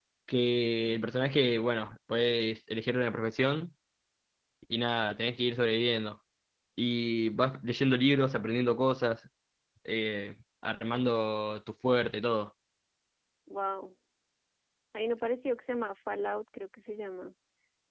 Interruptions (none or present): none